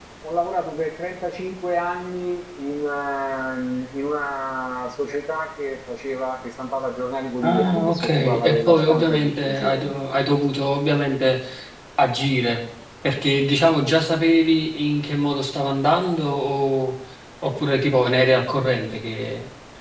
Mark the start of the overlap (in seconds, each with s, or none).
7.4 s